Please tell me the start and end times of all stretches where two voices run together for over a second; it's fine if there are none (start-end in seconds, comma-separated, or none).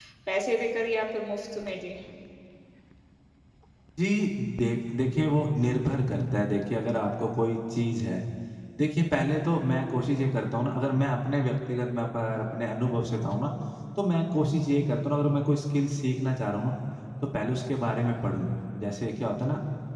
none